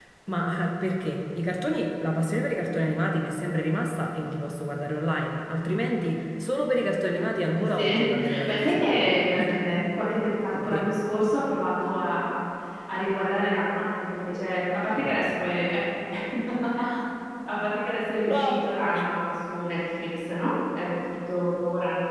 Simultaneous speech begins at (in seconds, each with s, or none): 7.6 s